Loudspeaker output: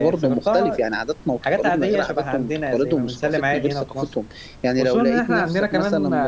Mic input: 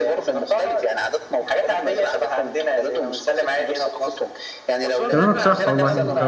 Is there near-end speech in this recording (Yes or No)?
Yes